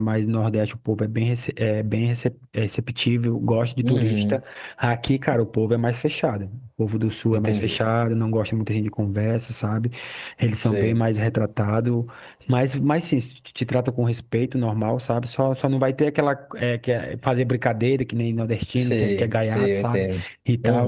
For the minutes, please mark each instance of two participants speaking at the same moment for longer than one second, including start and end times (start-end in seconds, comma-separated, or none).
18.8-20.1